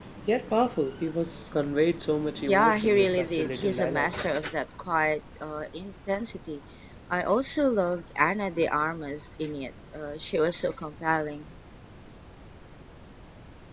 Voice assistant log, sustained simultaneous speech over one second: present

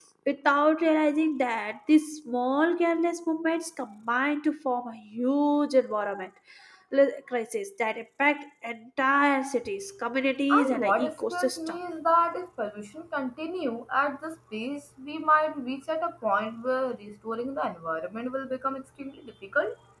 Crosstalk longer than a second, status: present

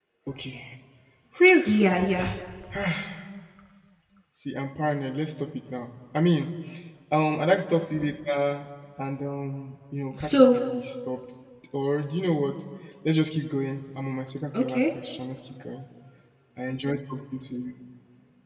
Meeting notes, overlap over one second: none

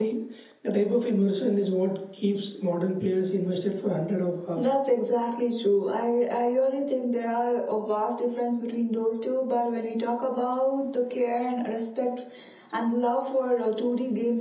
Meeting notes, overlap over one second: none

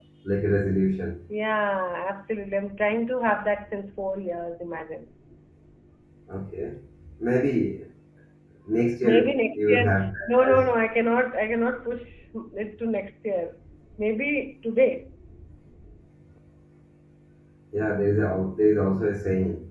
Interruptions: present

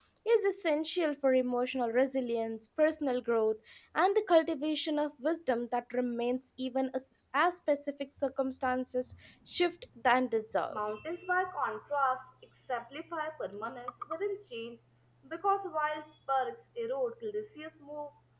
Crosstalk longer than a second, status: none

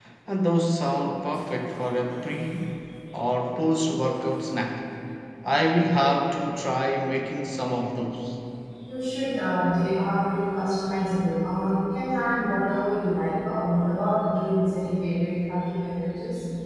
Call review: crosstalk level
none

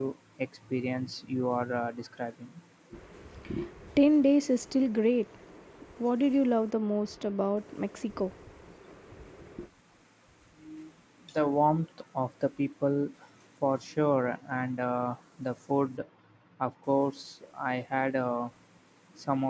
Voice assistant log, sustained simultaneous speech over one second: none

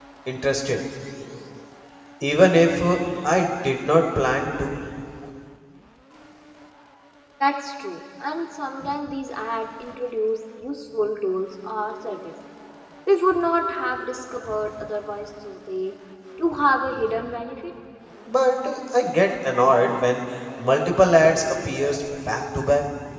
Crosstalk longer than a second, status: none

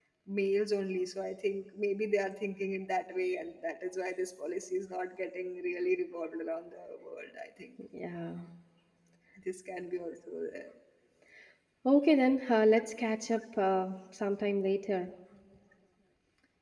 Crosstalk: none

